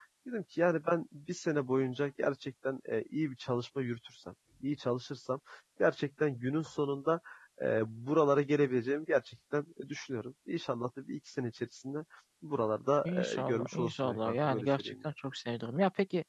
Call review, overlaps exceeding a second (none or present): present